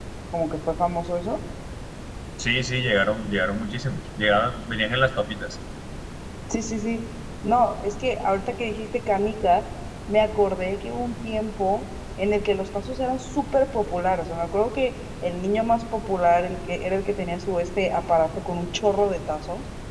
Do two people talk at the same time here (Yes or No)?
No